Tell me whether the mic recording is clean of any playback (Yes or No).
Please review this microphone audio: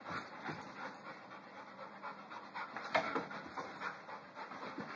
Yes